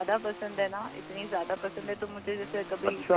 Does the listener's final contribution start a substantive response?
No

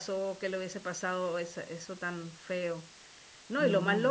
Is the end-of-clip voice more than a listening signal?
No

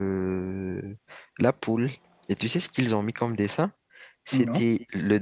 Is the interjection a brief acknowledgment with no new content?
Yes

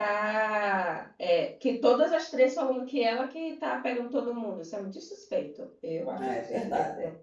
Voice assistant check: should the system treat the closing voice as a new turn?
Yes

